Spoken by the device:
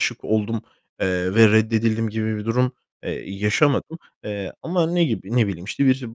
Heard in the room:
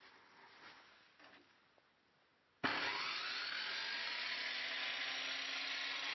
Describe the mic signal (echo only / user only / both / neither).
neither